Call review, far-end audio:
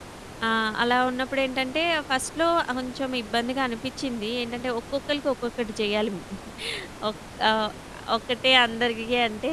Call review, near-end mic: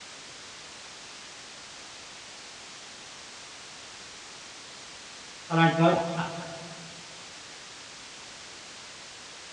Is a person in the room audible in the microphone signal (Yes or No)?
Yes